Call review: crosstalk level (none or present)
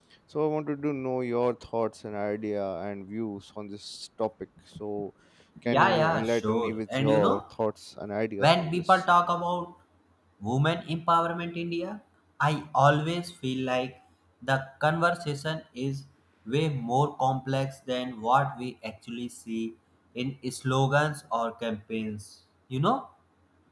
present